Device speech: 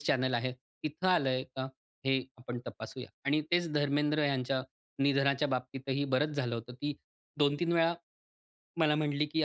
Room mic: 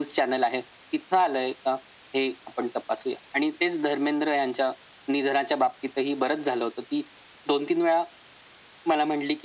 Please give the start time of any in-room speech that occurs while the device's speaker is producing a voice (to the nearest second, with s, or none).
none